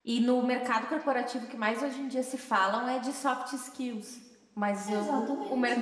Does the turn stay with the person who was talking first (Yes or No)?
Yes